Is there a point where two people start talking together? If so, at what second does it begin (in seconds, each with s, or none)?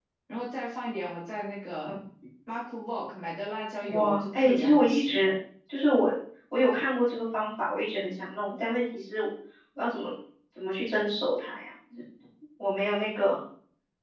3.8 s